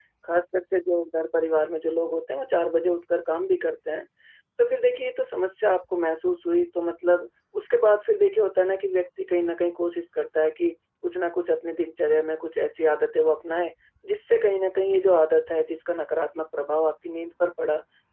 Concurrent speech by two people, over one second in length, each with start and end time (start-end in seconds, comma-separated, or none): none